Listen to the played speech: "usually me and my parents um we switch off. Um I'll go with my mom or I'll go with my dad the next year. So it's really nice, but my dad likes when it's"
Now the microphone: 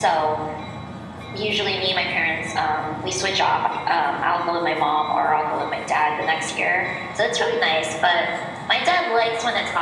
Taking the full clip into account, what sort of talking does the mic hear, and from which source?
echo only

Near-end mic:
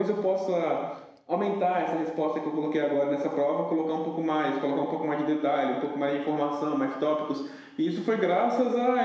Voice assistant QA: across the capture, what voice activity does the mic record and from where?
echo only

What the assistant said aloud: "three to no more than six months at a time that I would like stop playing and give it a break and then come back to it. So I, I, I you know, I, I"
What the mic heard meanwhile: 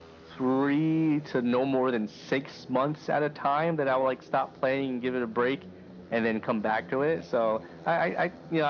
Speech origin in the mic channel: echo only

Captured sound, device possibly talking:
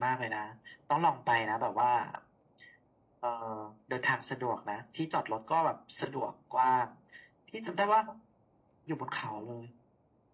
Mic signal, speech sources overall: echo only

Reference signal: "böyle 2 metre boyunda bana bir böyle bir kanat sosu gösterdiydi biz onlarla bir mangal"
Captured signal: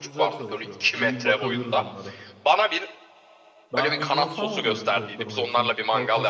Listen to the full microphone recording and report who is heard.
both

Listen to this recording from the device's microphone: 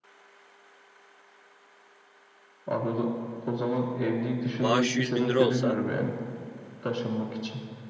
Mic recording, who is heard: both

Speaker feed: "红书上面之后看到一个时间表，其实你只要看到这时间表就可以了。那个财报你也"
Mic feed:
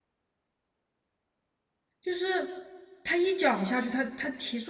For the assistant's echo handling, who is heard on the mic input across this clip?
user only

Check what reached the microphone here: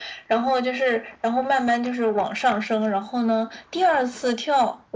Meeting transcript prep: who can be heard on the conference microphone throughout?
echo only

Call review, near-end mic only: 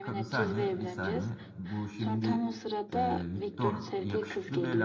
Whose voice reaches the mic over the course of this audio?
both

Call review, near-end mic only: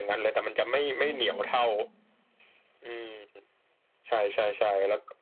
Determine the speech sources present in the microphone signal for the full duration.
both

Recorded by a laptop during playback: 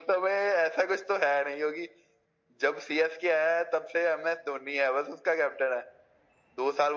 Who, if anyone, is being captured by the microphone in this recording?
echo only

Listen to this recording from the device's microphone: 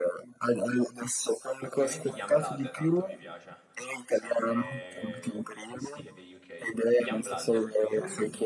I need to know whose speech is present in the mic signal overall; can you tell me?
both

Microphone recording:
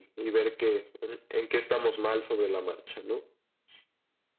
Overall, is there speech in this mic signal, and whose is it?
echo only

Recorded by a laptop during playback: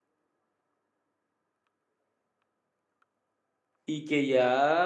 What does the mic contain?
user only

